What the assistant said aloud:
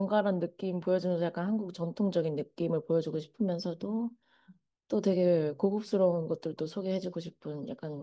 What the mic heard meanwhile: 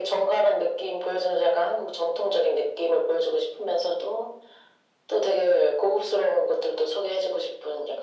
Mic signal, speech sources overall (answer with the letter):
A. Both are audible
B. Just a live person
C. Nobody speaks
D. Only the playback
D